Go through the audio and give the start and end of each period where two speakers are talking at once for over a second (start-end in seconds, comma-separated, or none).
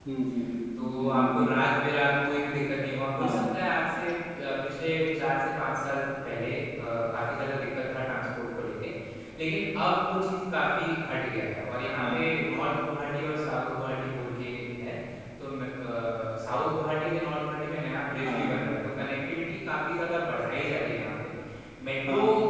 none